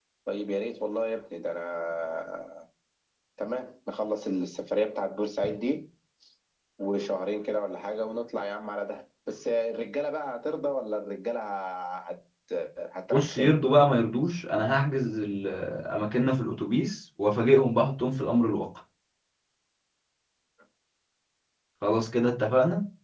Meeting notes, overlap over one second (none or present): none